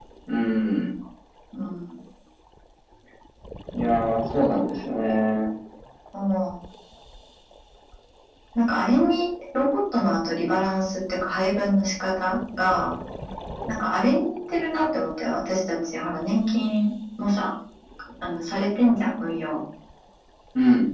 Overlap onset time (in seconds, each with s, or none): none